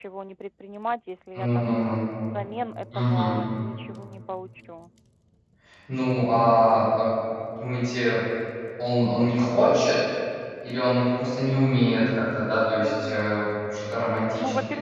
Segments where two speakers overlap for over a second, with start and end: none

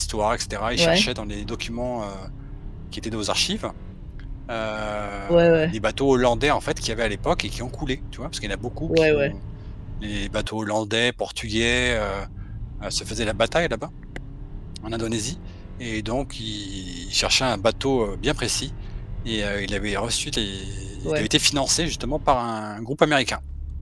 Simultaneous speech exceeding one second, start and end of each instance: none

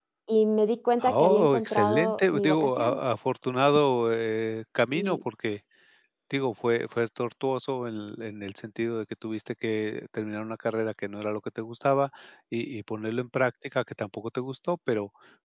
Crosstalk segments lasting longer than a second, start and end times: 1.0-3.0

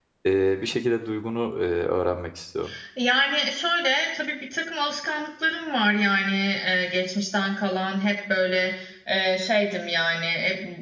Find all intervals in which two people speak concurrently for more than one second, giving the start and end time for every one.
none

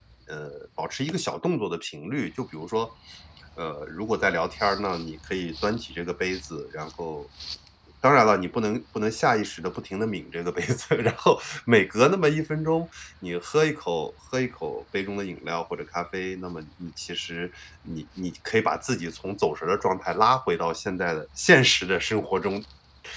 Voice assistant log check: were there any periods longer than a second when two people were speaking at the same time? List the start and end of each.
none

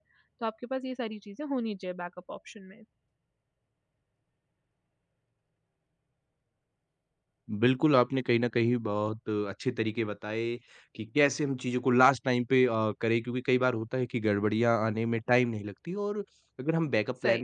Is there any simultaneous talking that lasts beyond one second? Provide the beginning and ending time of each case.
none

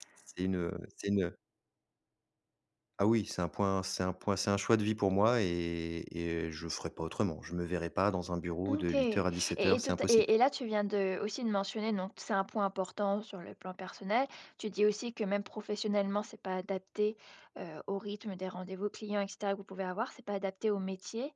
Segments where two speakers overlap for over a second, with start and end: 8.7-10.2

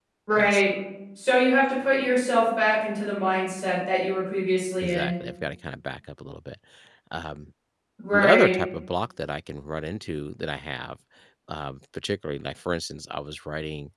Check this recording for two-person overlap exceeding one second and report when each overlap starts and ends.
none

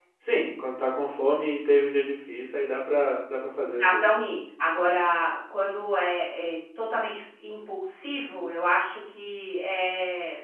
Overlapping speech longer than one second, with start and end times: none

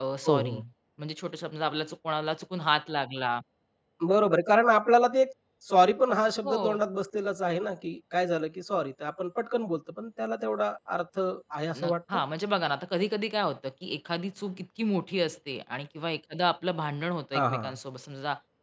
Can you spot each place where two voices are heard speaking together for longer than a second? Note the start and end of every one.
none

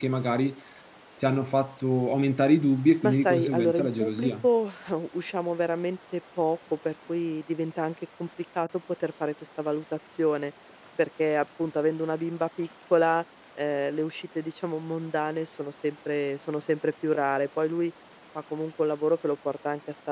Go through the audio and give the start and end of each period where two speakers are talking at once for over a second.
3.0-4.5

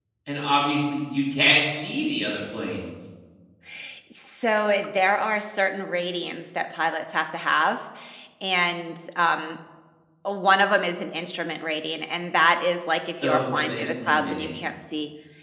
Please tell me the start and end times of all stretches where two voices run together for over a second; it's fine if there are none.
13.2-14.5

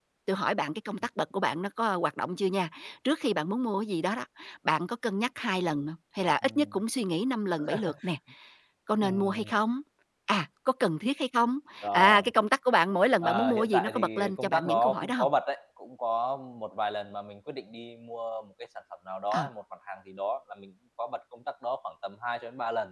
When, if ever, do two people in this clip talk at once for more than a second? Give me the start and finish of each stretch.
13.2-15.3

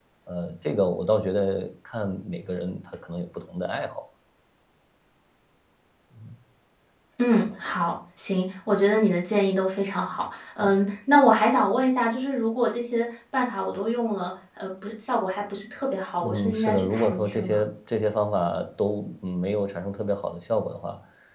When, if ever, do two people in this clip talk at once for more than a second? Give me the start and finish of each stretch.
16.2-17.6

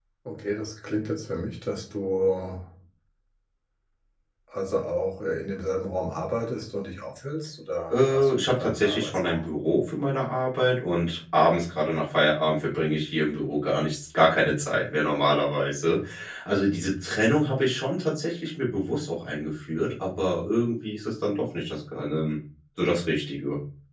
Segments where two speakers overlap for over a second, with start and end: 7.9-9.5

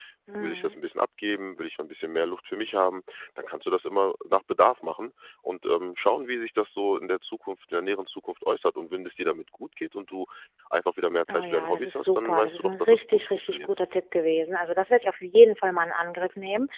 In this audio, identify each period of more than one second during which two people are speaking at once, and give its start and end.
11.3-13.7

